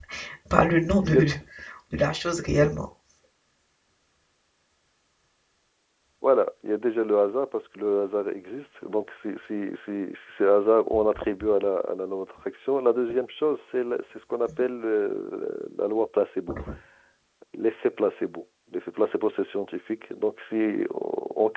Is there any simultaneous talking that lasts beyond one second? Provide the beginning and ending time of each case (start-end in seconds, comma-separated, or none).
none